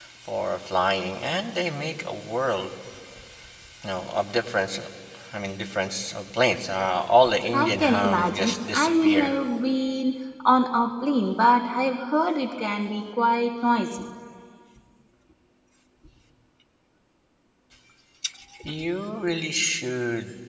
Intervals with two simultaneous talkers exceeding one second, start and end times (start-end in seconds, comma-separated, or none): 7.5-9.3